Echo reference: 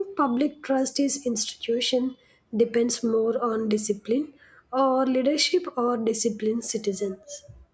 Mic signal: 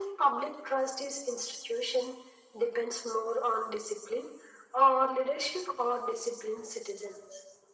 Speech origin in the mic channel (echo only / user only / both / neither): echo only